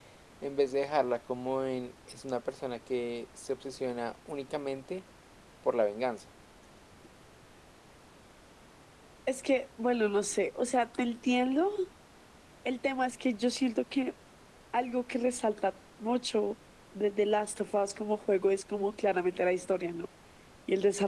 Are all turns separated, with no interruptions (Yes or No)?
Yes